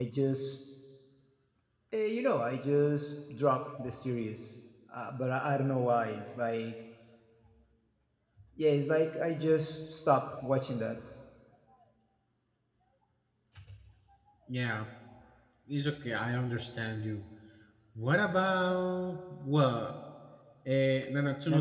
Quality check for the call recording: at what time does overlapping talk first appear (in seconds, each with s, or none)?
none